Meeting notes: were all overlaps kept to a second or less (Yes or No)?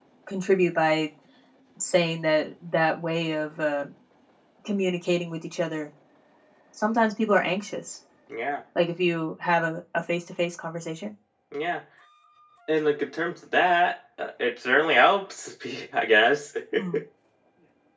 Yes